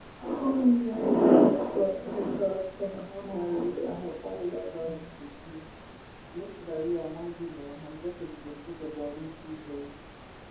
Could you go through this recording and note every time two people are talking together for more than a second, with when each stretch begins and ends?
3.1-5.2

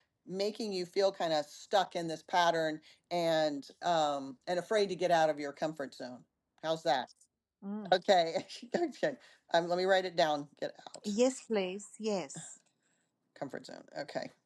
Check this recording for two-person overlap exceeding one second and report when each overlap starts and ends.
none

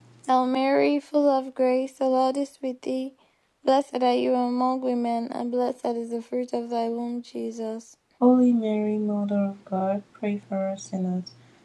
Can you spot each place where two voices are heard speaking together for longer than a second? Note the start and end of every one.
none

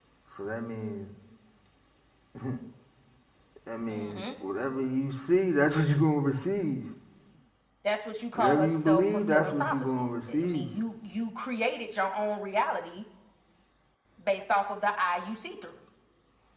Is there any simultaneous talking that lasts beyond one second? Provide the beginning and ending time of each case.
8.3-10.7

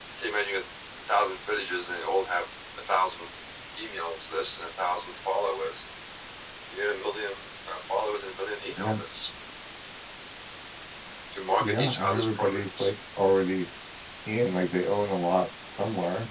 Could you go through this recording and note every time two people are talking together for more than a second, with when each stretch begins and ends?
11.6-12.9

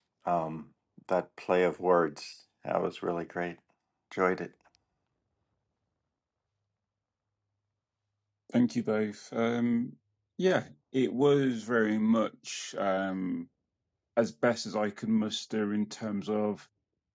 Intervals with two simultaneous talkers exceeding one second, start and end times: none

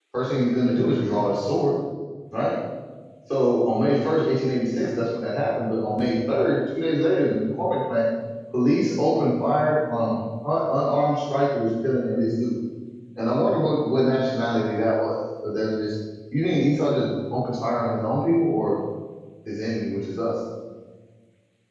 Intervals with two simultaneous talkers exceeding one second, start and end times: none

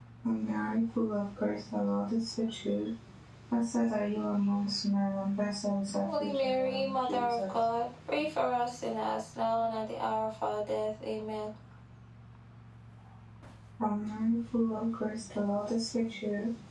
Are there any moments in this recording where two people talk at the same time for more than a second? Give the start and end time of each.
6.0-7.5

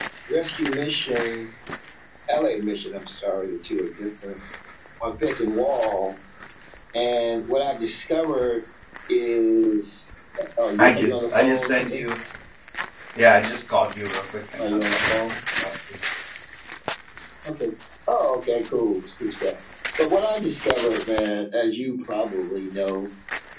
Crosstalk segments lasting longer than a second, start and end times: 10.8-12.0

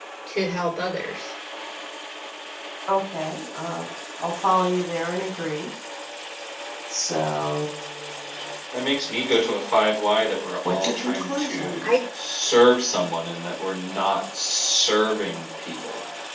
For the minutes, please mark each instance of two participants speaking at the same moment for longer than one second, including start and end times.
10.7-11.9

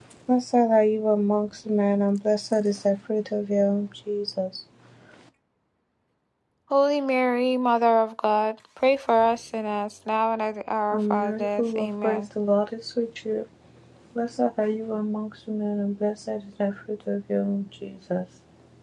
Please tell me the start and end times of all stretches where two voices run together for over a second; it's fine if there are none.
10.9-12.2

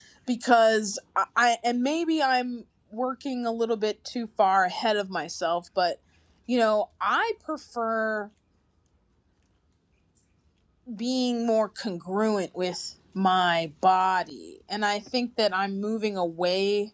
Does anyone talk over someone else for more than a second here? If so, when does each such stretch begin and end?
none

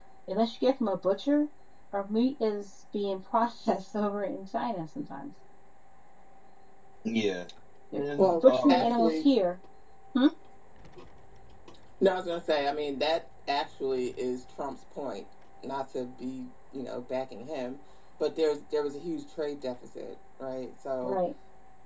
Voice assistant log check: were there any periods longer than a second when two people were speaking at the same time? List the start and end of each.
8.0-9.2

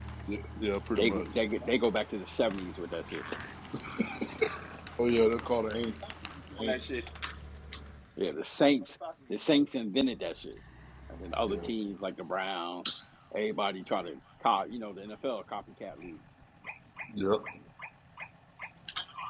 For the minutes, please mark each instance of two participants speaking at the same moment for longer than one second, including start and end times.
none

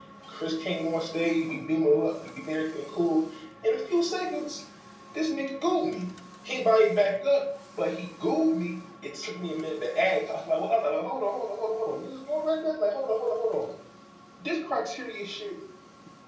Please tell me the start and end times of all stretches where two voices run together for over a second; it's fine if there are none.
none

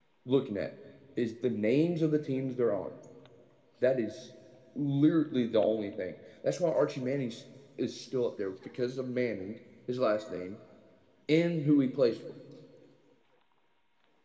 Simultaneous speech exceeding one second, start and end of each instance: none

